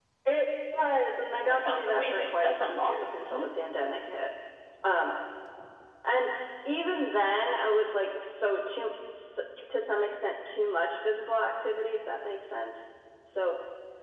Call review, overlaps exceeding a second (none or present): present